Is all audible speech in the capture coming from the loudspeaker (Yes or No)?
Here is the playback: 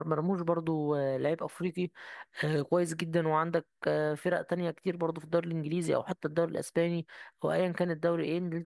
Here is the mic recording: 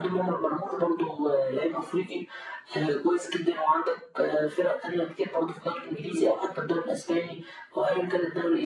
Yes